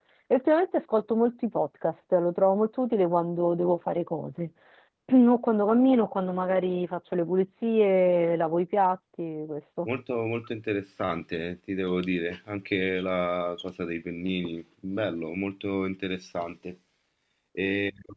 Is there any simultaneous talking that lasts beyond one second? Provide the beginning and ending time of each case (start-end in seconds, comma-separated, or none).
none